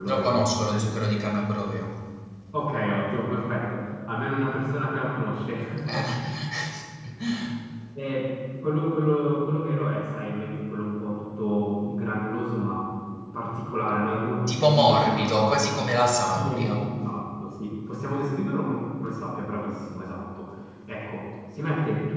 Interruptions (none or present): present